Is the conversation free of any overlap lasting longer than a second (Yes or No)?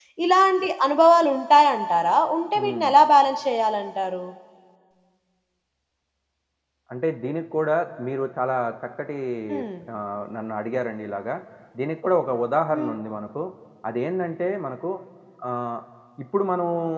Yes